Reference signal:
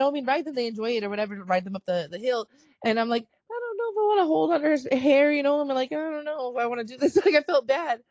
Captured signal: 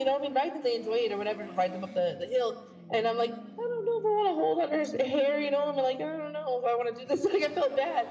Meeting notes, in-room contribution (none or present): none